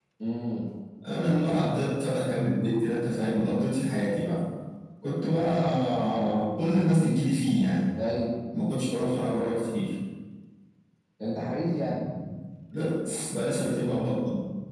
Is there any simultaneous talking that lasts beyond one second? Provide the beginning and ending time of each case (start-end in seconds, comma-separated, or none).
none